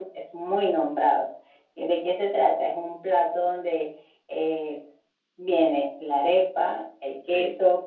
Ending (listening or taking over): listening